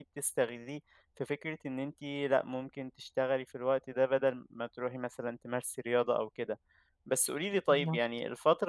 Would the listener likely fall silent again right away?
Yes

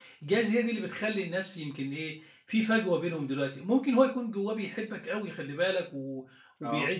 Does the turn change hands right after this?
No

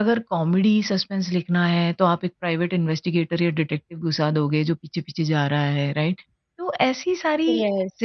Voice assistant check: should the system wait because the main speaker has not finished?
Yes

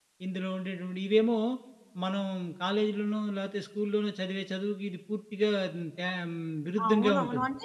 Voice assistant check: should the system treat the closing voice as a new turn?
Yes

